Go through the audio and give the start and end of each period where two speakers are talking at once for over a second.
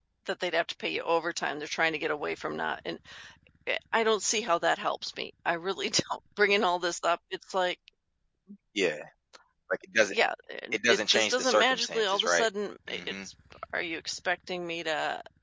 10.7-12.5

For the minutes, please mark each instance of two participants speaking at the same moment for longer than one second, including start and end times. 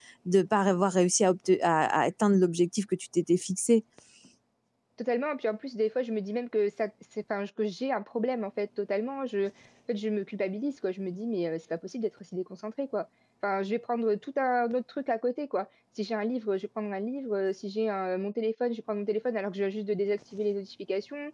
none

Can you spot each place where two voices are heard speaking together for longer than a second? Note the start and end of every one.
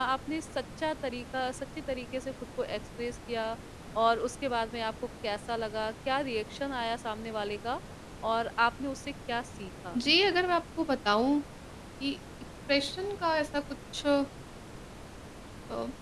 none

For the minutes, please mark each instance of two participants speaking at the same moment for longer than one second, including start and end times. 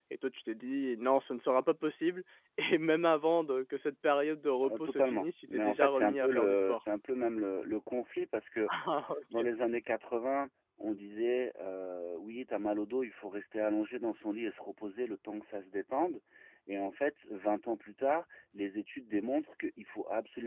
4.6-6.8

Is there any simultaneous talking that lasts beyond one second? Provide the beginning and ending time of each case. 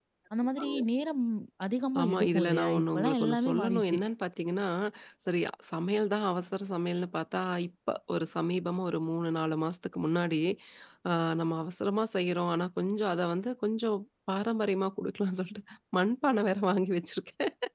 2.0-4.0

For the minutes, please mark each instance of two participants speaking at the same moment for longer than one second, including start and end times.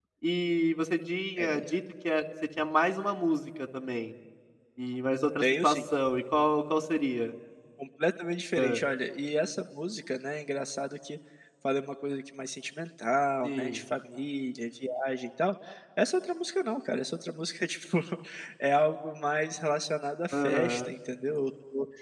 none

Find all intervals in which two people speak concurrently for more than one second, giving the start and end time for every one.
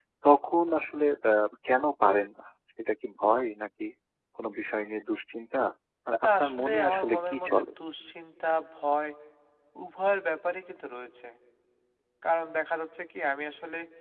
6.2-7.7

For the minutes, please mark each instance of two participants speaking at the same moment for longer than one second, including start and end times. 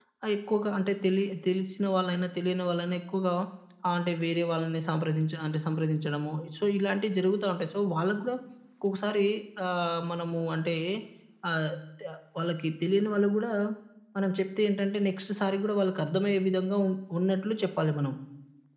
none

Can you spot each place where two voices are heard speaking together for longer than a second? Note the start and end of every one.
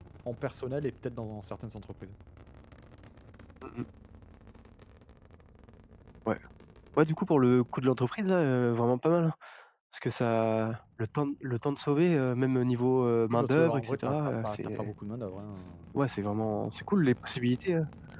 13.3-14.9

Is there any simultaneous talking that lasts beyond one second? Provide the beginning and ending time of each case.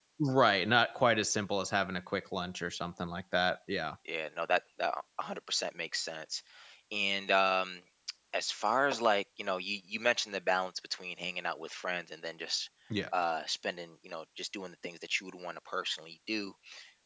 none

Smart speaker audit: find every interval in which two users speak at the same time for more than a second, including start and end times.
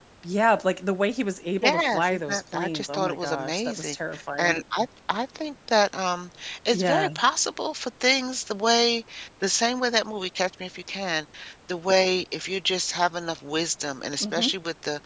1.6-4.0

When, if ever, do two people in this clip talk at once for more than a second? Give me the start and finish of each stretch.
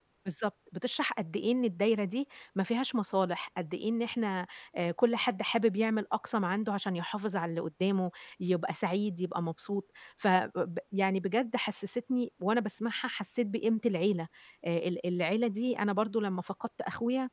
none

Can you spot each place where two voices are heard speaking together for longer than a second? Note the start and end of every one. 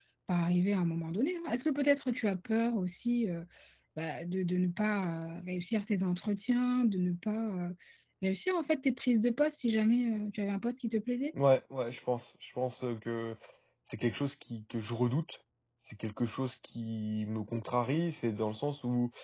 none

